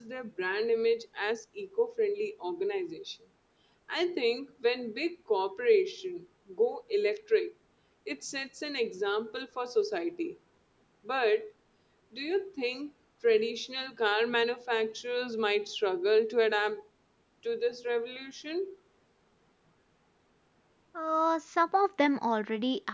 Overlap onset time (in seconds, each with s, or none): none